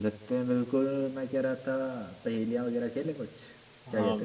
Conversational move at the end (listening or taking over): taking over